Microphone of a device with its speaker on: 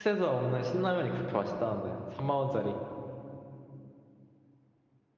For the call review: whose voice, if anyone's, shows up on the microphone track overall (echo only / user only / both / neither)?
user only